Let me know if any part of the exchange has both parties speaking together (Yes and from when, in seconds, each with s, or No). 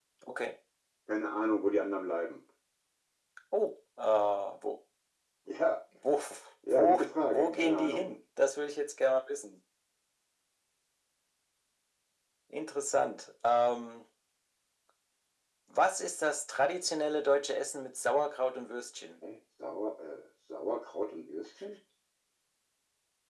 Yes, from 6.7 s